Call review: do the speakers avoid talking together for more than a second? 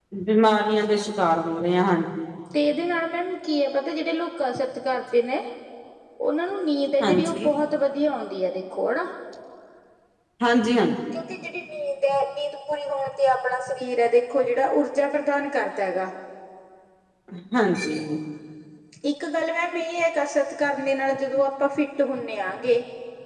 Yes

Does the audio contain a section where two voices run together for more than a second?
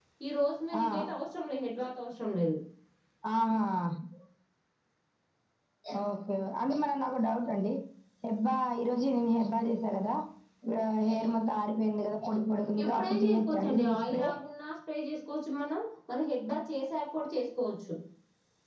Yes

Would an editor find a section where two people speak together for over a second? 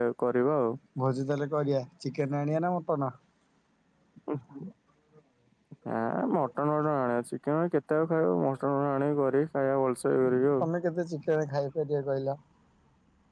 No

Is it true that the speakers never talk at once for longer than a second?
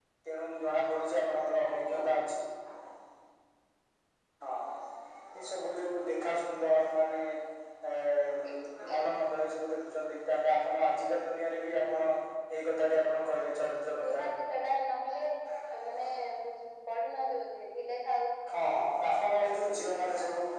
Yes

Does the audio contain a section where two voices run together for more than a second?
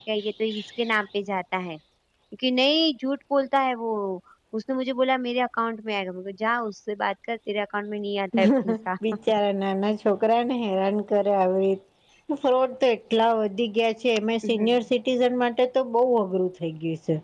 No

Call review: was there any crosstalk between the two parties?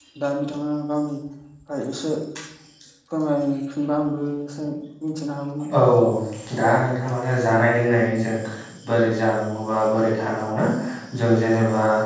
No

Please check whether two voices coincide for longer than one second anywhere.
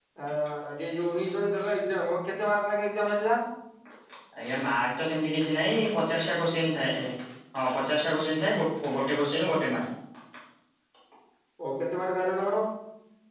No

